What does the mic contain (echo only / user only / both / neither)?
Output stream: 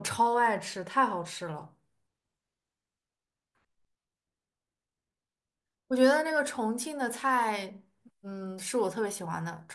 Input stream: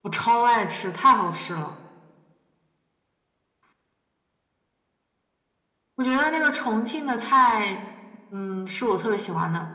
echo only